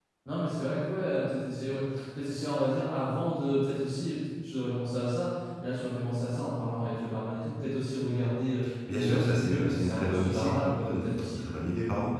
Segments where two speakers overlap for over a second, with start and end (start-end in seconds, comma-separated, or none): 8.9-11.4